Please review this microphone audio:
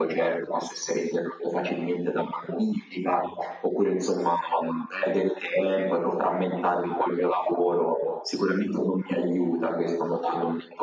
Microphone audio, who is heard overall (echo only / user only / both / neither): echo only